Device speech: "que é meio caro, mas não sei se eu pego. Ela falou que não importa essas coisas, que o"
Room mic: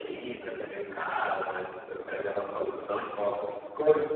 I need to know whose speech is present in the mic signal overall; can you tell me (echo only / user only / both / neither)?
echo only